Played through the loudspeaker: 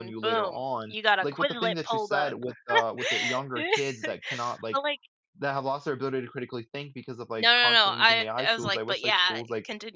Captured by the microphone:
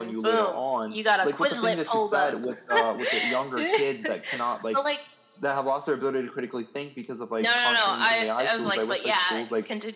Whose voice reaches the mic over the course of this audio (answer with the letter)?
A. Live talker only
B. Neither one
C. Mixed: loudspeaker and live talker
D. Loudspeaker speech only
D